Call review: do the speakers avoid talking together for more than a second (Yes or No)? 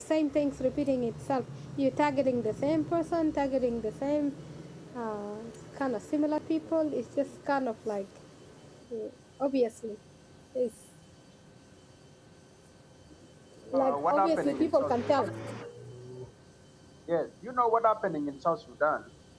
No